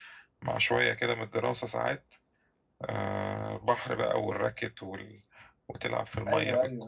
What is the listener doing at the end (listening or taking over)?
taking over